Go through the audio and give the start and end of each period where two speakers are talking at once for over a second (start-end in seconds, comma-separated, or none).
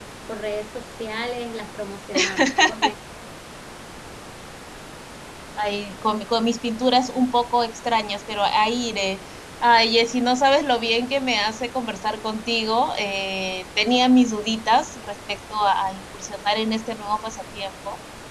none